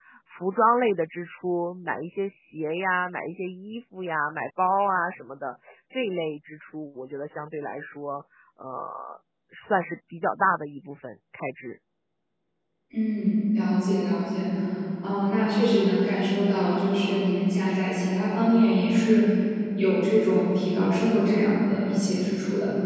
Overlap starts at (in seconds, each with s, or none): none